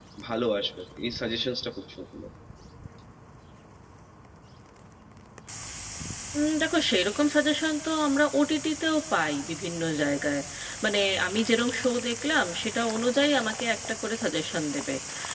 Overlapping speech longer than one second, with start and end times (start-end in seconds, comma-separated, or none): none